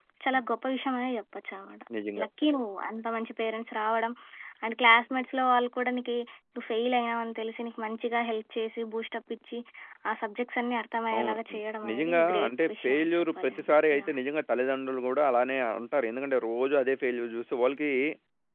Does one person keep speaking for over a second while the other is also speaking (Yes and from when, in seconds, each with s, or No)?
Yes, from 11.1 s